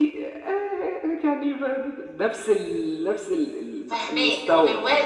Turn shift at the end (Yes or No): Yes